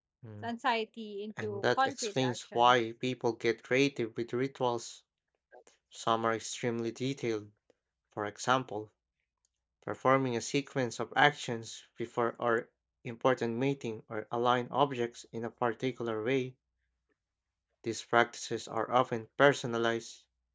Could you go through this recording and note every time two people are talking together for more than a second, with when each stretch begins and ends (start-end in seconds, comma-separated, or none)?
1.4-2.7